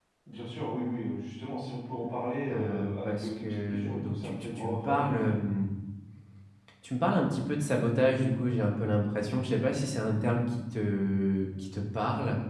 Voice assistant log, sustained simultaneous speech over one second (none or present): present